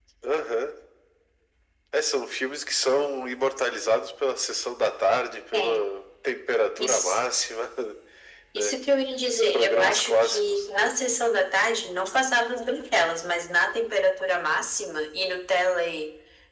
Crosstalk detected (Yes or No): Yes